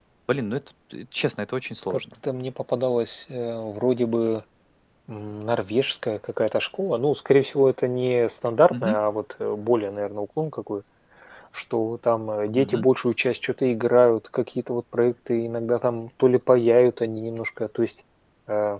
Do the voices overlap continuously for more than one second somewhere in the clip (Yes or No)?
No